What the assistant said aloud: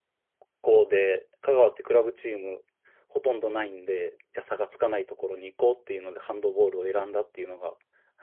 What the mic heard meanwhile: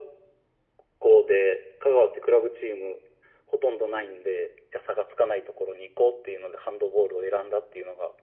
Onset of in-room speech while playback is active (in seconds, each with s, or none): none